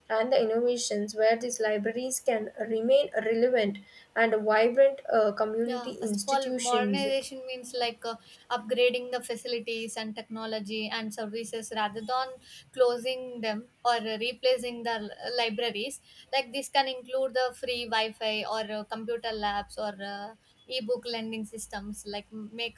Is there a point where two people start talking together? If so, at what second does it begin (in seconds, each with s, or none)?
5.7 s